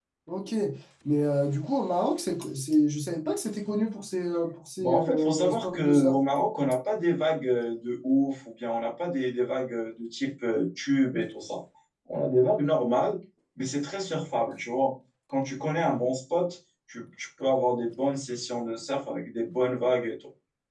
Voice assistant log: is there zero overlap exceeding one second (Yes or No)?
No